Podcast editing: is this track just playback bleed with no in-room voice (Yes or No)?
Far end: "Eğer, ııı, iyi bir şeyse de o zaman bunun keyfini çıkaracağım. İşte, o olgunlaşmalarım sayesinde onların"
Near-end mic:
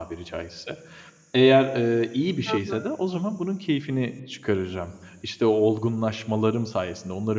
No